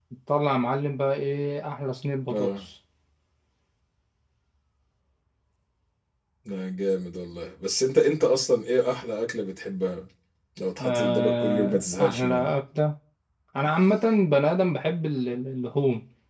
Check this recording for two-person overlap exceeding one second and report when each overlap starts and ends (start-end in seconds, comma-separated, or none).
10.8-12.2